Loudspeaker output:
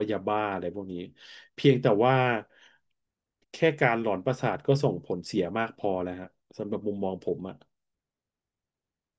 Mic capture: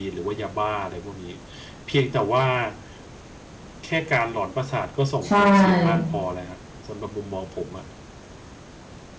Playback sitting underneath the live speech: Yes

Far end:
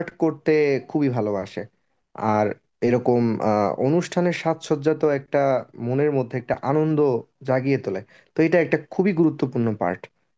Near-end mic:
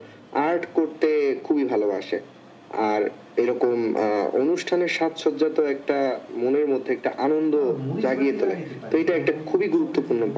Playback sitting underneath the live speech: No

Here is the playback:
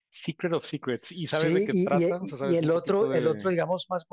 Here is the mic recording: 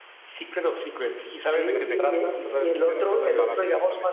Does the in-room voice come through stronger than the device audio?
No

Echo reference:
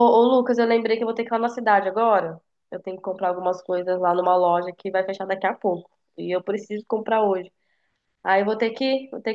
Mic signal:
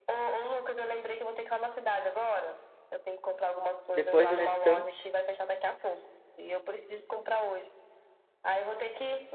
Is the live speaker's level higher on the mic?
Yes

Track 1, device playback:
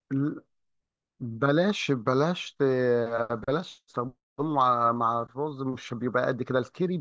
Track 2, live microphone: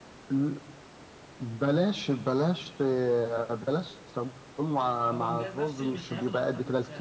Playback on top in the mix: Yes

